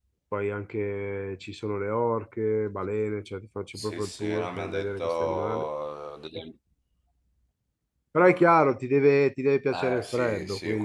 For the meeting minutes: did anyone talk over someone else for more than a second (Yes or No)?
Yes